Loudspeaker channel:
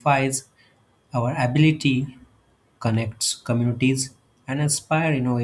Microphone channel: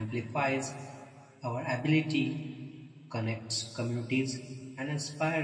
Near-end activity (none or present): none